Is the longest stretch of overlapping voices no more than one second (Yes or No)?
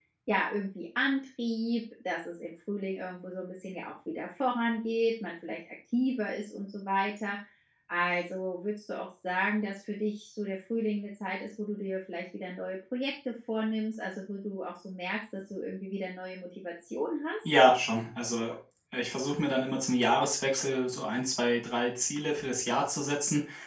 Yes